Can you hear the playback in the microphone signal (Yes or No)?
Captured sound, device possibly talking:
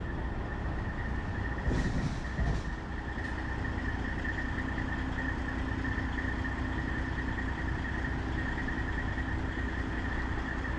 No